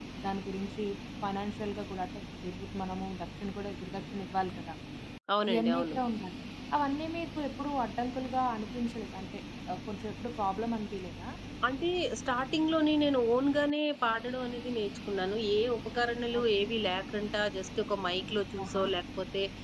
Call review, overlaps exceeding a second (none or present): none